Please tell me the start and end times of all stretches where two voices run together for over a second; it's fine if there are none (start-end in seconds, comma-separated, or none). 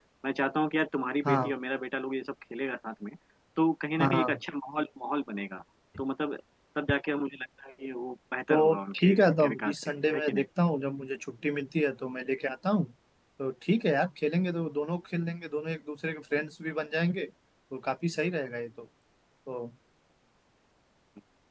8.5-10.4